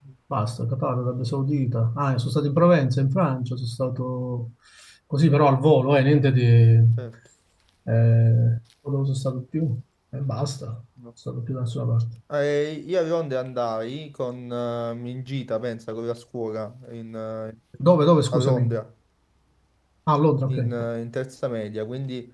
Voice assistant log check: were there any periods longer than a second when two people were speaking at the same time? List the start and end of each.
none

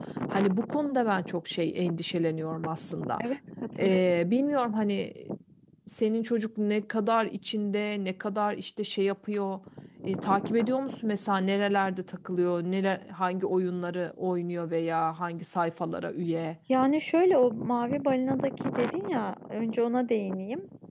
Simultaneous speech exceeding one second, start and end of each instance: none

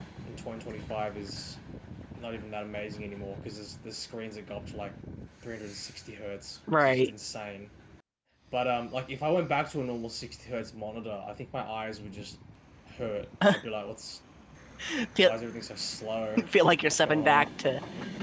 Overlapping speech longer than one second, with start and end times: none

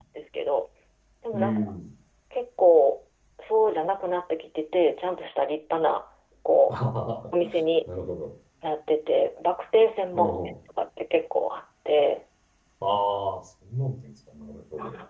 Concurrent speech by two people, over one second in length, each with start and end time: none

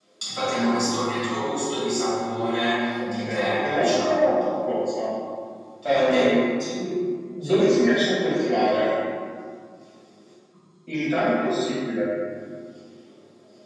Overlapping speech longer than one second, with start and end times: 3.0-4.3

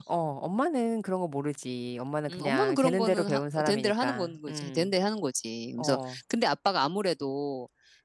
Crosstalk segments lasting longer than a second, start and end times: 2.3-4.9

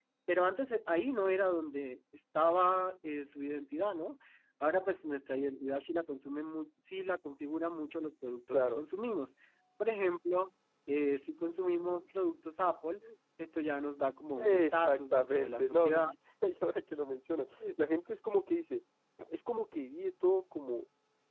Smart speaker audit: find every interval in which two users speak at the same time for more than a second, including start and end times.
14.4-16.1

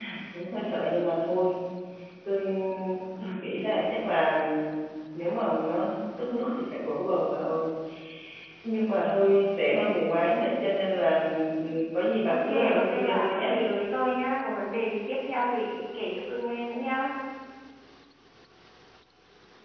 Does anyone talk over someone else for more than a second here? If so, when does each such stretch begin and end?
12.3-13.6

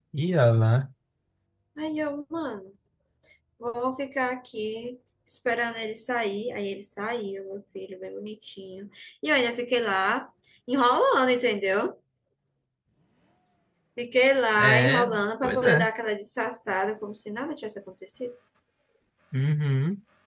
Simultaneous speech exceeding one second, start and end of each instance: 14.6-15.9

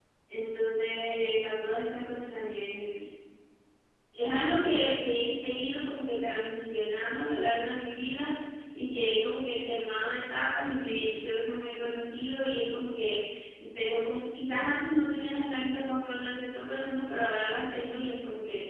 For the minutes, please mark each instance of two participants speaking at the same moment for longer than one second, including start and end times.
none

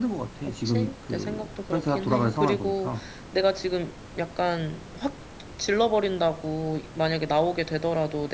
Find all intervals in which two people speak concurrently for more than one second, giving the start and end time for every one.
0.7-2.9

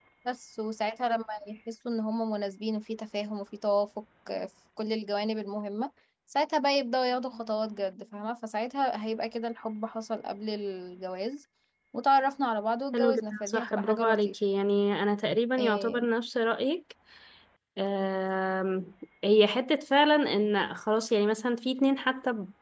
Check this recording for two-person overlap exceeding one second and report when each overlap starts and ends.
12.9-14.3

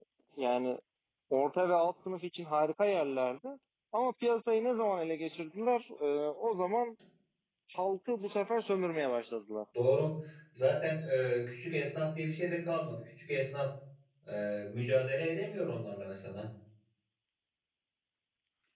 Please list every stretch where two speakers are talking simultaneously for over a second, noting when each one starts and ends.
none

